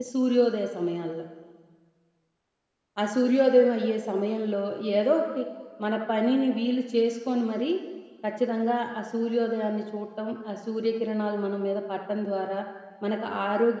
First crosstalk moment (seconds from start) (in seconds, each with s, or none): none